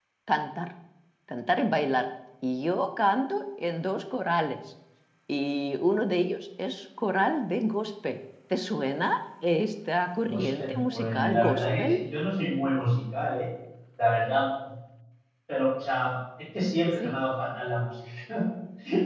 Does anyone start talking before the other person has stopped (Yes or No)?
Yes